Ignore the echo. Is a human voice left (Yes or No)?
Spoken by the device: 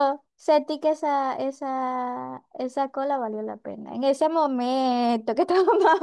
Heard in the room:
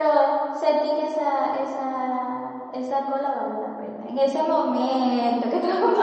No